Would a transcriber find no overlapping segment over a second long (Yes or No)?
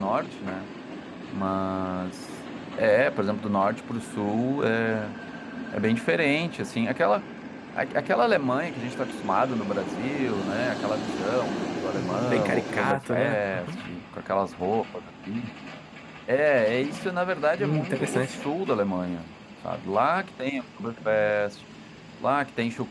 No